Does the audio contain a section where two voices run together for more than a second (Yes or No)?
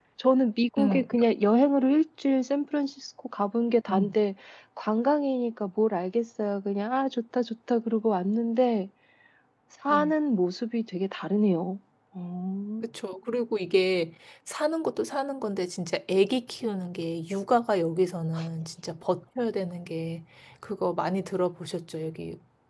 No